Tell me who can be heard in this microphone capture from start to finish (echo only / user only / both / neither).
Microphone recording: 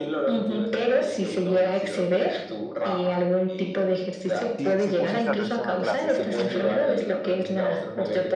both